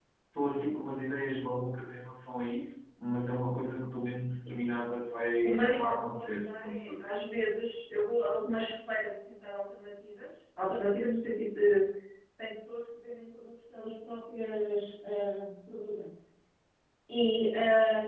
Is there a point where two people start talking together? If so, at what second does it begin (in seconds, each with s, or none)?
5.4 s